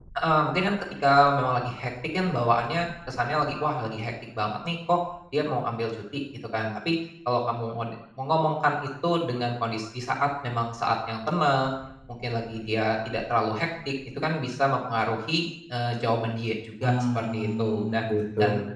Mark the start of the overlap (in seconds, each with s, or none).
16.8 s